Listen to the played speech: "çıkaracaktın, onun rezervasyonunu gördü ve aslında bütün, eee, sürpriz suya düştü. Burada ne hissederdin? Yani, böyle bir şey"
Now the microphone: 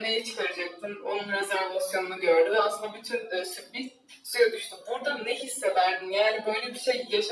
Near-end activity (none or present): none